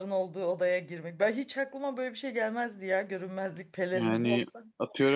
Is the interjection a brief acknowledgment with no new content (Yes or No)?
No